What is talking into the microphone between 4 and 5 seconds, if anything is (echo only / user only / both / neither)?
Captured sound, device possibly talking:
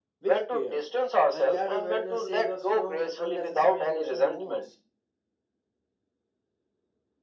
both